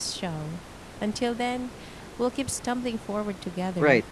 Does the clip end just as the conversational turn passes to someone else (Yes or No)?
Yes